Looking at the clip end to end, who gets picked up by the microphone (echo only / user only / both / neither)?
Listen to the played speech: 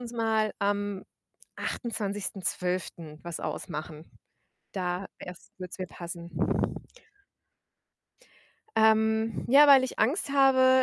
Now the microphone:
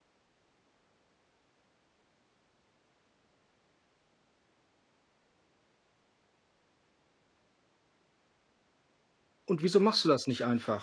user only